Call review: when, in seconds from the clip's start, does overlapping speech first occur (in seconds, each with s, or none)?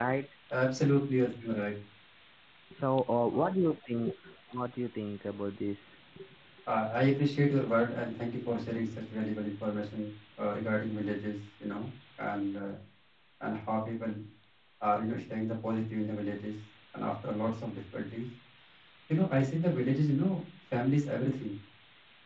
none